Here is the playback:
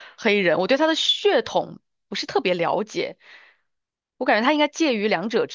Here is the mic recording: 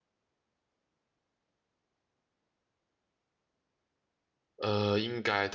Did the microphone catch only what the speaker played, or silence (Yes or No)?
No